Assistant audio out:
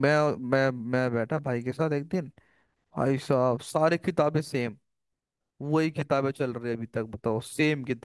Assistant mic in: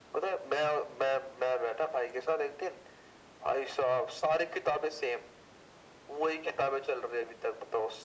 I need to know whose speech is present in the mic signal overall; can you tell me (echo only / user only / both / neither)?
echo only